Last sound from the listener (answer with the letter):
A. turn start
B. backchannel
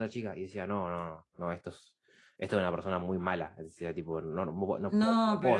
A